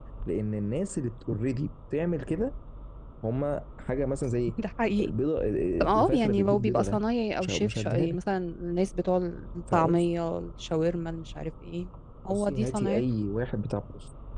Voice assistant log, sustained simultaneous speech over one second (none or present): present